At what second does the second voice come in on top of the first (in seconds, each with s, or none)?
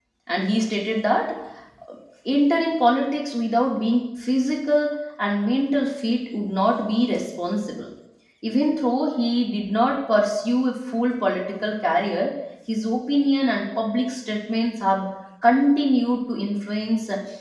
none